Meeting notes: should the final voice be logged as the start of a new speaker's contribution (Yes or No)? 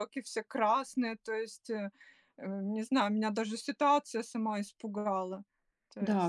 Yes